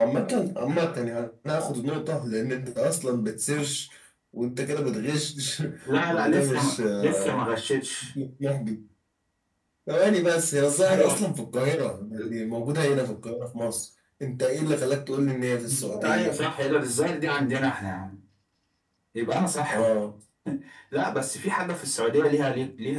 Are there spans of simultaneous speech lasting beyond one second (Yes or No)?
Yes